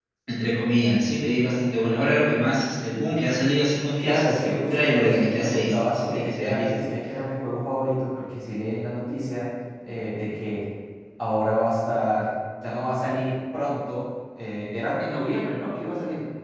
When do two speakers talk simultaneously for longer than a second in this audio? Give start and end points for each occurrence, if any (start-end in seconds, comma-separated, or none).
4.0-6.7